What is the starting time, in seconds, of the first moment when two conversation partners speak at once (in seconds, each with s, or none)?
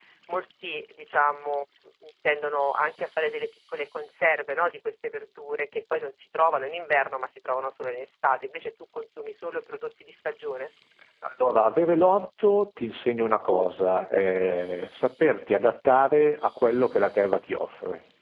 none